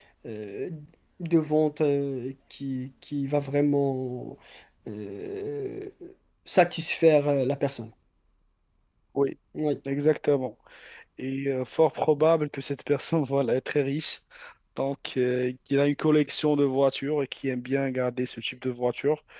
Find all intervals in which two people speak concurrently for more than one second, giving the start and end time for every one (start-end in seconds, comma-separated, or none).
none